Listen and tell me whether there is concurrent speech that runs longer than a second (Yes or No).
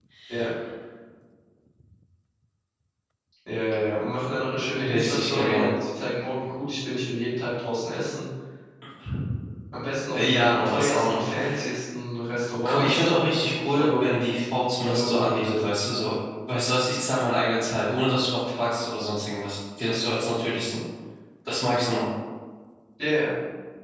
Yes